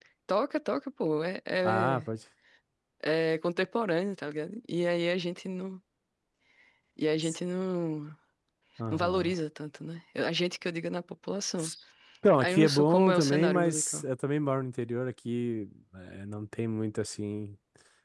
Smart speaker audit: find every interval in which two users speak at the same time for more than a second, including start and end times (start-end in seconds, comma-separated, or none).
12.4-14.0